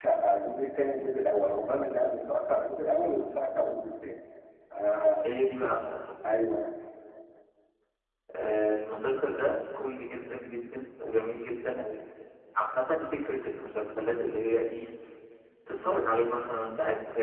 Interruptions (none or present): none